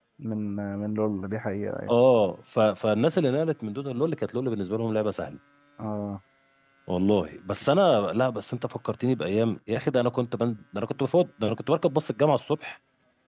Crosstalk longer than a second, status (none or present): none